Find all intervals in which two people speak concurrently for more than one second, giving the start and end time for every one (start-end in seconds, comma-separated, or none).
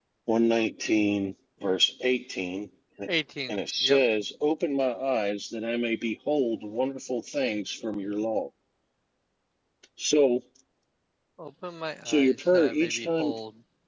12.0-13.4